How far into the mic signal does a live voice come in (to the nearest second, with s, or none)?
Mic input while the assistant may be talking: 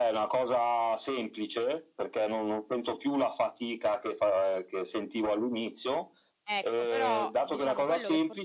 6 s